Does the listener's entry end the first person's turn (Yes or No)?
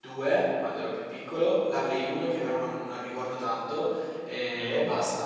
No